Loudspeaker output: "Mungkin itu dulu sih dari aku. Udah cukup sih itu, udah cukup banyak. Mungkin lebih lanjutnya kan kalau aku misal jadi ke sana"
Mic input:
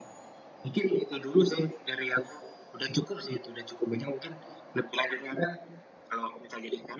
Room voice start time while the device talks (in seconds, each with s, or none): none